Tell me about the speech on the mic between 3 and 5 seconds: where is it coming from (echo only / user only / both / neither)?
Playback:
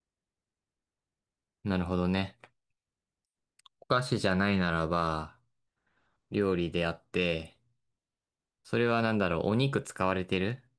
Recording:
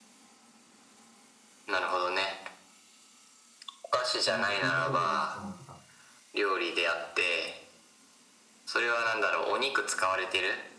both